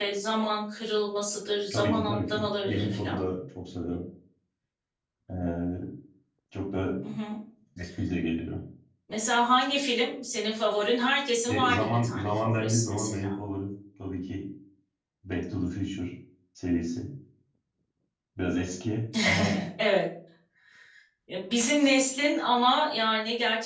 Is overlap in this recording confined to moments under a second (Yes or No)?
No